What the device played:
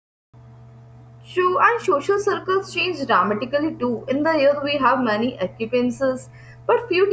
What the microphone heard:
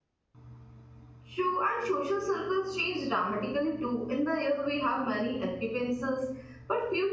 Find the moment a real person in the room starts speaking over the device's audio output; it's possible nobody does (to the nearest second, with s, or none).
none